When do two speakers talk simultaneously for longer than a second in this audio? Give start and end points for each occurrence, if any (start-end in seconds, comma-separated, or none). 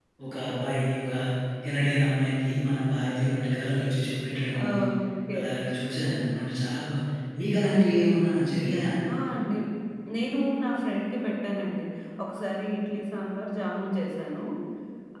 none